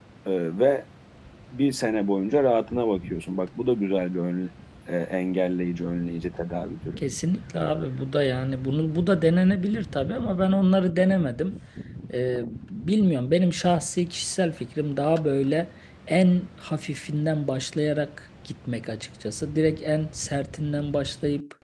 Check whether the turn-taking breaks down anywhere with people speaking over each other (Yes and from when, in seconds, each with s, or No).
No